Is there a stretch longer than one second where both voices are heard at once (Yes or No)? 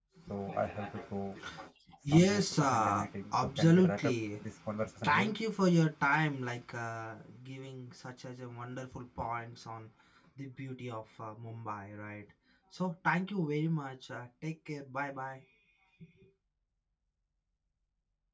Yes